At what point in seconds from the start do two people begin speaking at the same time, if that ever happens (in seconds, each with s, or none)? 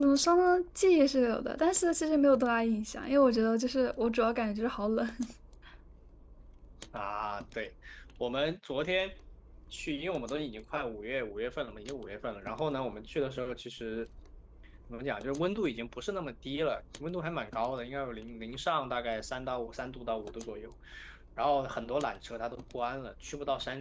none